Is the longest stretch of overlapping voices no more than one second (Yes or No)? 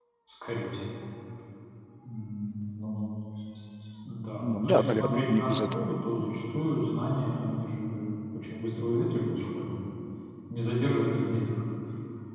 No